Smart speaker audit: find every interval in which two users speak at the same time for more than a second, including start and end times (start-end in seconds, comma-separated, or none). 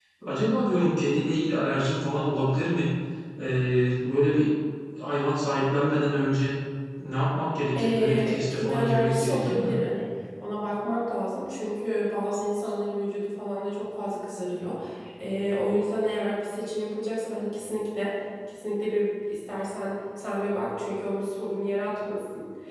7.8-9.8